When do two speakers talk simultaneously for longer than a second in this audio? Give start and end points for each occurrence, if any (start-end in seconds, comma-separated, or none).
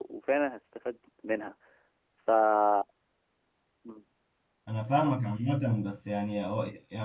none